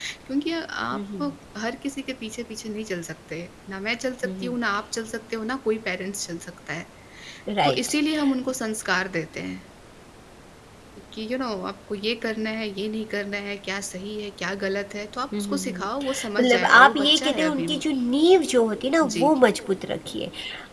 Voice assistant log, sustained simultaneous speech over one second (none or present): present